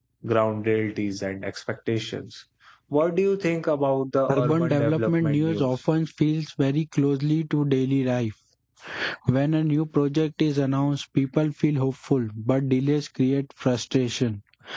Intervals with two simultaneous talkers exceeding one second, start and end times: 4.3-5.7

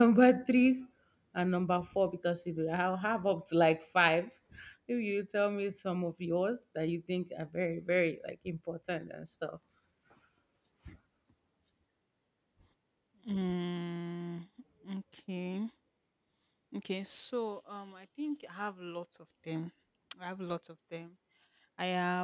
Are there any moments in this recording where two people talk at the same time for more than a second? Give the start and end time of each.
none

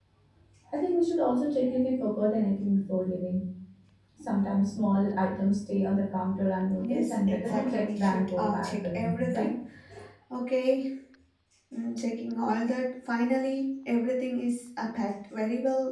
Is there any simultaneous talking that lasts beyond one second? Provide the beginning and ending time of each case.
6.8-9.5

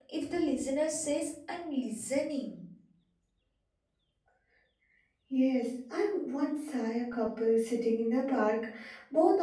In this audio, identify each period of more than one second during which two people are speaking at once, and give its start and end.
none

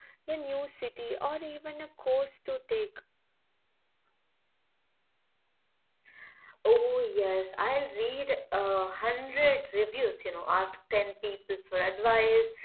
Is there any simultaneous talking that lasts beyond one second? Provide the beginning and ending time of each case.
none

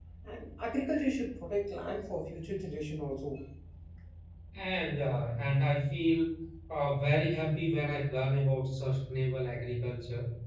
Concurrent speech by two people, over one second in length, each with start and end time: none

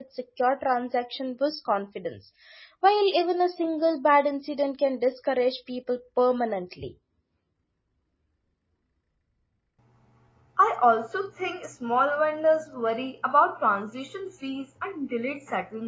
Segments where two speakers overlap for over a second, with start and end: none

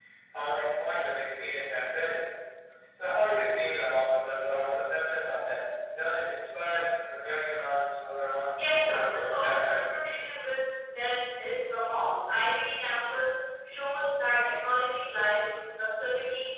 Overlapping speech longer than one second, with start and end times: 8.5-9.8

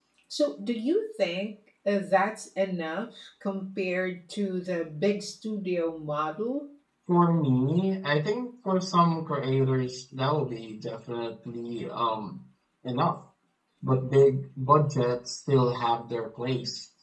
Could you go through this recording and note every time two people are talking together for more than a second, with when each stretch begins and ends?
none

